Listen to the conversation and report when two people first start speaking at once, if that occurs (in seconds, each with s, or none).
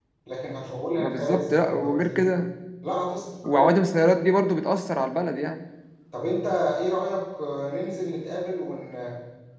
1.0 s